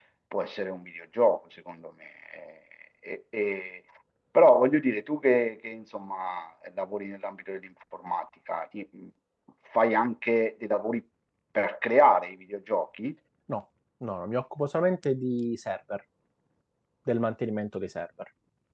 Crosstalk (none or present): none